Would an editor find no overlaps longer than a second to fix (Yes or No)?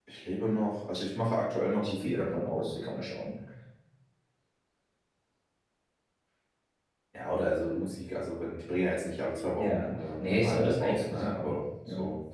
No